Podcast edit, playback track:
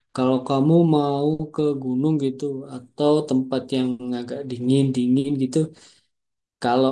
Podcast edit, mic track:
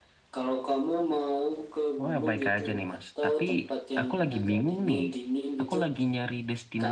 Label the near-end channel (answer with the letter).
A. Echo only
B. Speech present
B